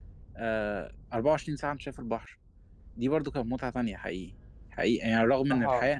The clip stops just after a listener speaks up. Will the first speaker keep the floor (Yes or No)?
Yes